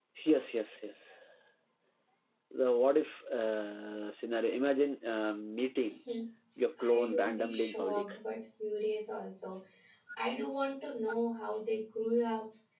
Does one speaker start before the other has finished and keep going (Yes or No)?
Yes